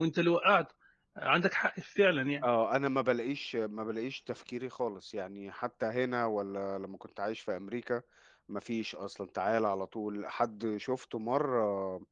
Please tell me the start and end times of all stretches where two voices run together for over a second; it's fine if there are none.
none

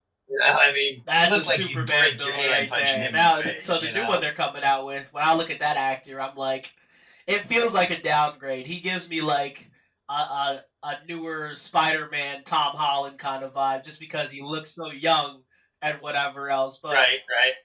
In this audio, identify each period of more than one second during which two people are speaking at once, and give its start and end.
1.2-4.2

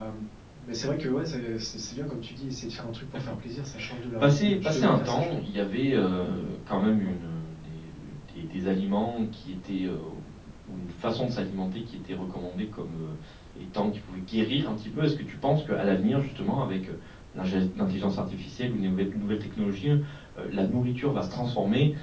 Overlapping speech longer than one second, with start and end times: 4.2-5.5

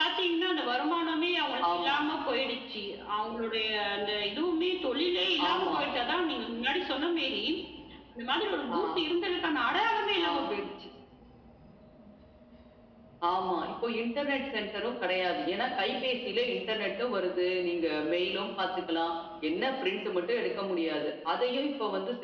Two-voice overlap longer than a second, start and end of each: none

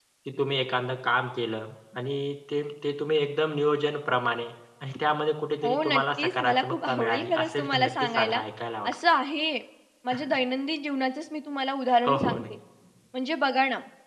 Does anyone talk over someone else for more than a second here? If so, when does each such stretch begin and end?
5.6-8.4

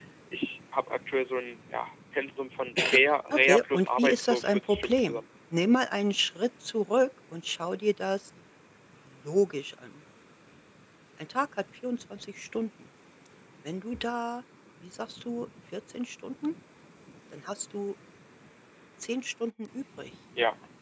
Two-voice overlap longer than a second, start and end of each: 3.3-5.2

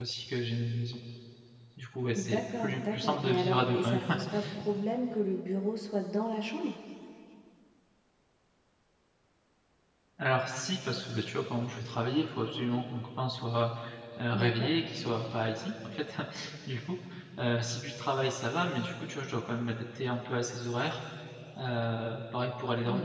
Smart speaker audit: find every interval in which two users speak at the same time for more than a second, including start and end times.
2.2-4.0

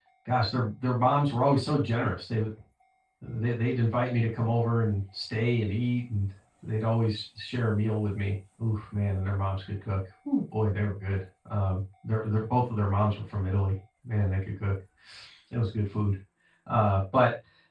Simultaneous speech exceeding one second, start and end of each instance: none

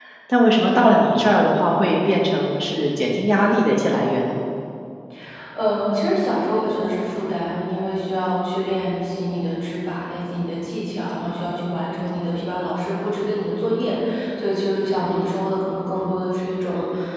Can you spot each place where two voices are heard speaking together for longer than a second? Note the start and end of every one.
none

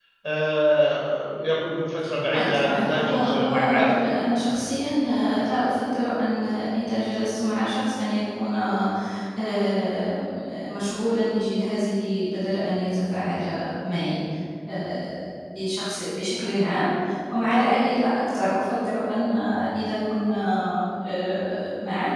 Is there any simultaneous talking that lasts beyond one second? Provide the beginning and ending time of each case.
2.3-4.1

